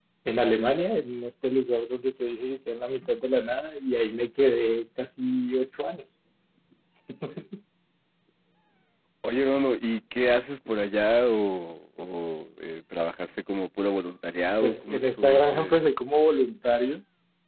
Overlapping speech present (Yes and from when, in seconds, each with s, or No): Yes, from 14.6 s